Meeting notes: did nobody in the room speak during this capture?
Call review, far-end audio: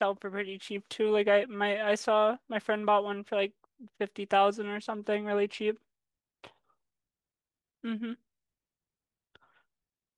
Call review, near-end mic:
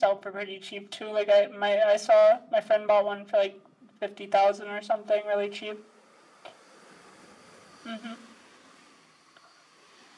Yes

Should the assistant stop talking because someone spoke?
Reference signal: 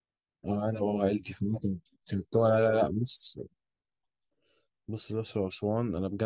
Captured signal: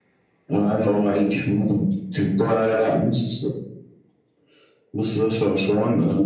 No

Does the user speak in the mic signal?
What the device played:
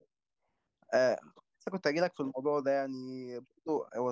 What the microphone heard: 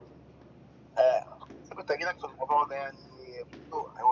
No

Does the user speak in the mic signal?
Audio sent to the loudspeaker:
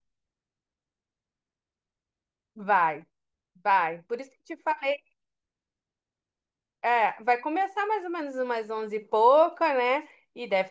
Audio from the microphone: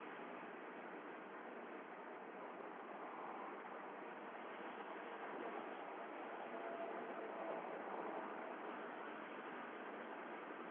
No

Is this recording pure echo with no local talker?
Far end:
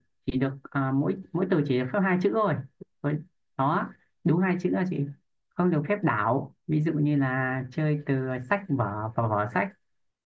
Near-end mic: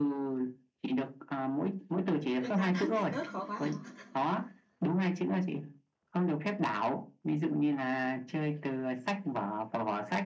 No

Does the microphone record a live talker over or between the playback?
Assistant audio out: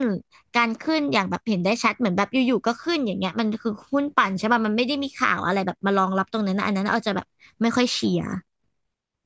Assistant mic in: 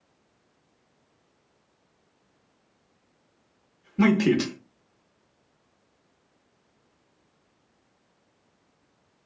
Yes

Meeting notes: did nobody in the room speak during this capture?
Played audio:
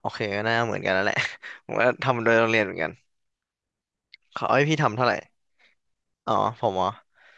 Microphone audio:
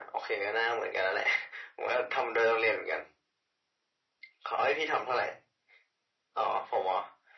Yes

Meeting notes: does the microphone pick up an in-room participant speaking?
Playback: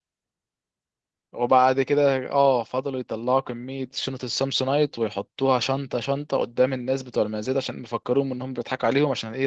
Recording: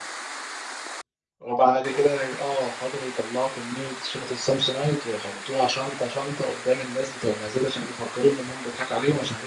No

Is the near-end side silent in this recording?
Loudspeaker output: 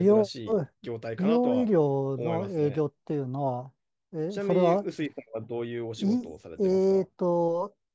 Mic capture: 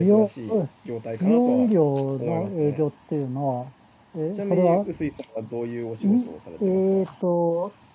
Yes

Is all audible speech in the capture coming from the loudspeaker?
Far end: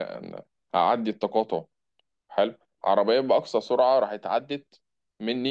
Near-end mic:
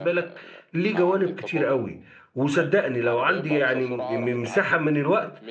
No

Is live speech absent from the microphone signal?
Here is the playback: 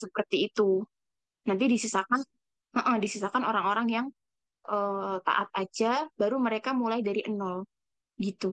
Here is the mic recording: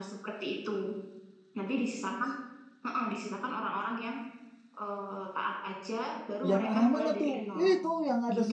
No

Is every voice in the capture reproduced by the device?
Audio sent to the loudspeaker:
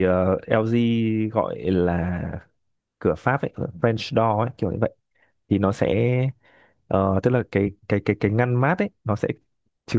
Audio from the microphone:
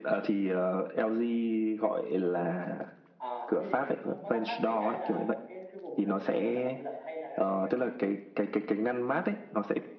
No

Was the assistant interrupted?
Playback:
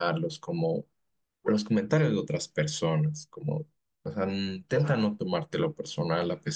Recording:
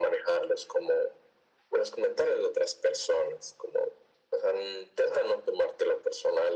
No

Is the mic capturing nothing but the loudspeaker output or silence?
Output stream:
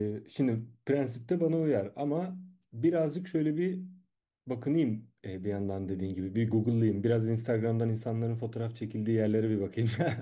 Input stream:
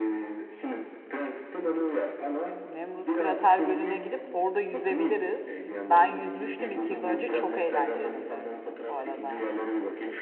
No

